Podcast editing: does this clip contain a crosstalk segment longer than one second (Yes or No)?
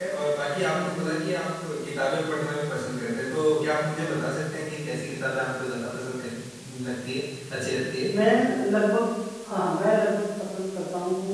No